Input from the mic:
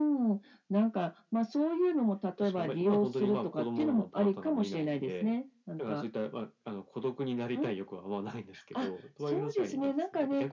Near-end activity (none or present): none